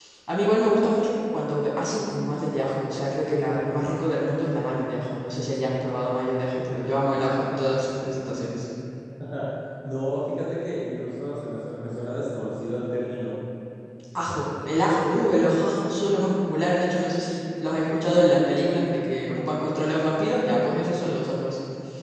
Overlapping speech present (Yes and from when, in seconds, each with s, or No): No